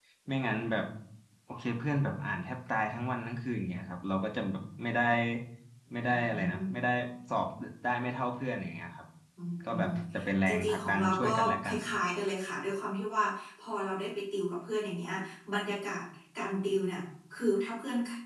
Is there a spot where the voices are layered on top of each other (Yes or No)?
Yes